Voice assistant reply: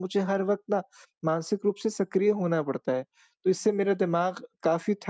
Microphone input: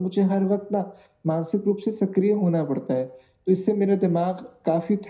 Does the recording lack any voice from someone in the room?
Yes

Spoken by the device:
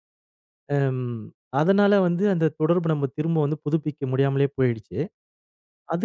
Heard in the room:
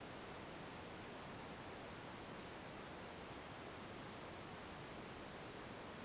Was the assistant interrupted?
No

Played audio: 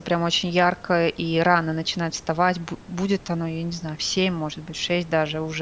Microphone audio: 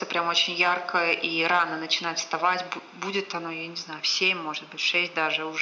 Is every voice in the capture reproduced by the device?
Yes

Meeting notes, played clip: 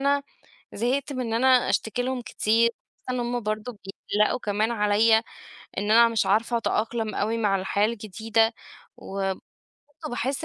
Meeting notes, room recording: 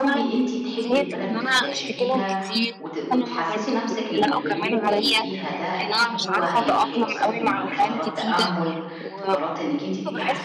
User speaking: Yes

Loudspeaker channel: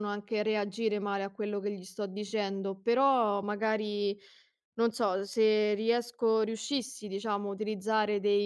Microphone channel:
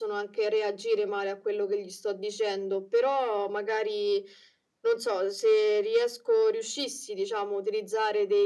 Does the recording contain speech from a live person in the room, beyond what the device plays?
No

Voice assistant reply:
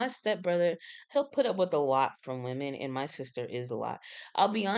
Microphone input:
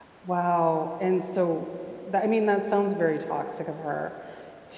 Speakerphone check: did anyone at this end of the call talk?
Yes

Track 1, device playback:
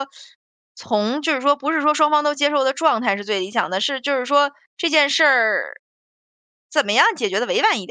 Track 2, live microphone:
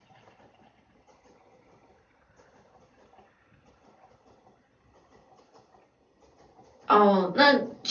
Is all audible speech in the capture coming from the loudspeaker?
No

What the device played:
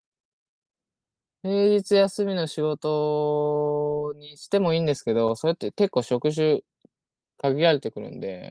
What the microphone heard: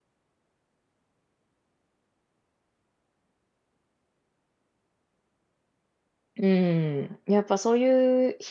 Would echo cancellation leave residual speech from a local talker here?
Yes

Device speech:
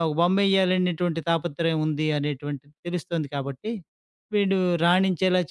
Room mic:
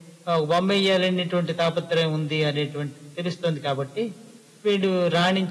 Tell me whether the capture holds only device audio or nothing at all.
Yes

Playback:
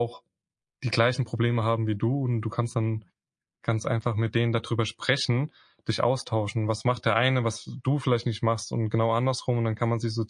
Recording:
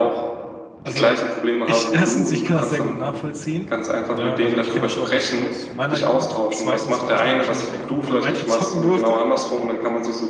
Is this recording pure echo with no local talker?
No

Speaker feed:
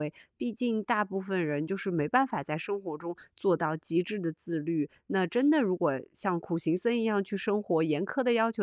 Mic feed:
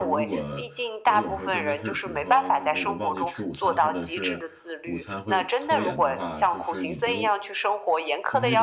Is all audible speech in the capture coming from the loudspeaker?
No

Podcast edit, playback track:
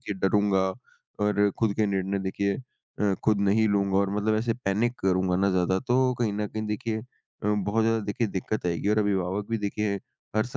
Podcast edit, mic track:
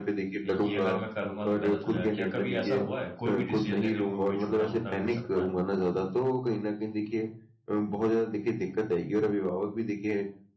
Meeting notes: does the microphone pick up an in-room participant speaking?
Yes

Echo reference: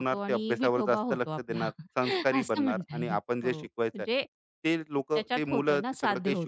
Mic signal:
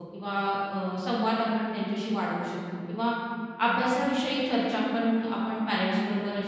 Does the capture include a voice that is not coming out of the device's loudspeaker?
Yes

